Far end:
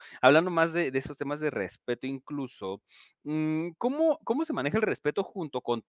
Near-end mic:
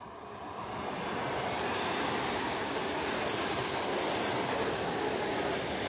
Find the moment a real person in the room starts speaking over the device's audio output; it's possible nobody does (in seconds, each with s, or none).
none